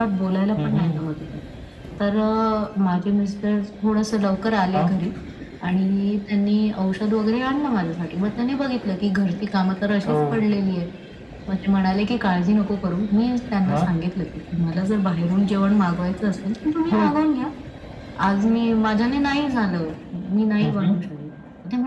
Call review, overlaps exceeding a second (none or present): none